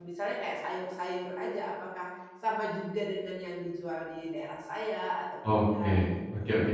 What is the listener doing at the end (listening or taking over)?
taking over